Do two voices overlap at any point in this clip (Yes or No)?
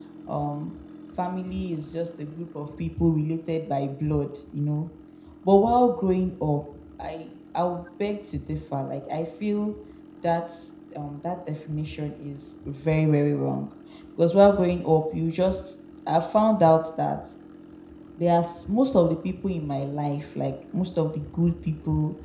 No